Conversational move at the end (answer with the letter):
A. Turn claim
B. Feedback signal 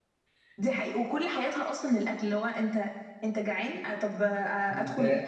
B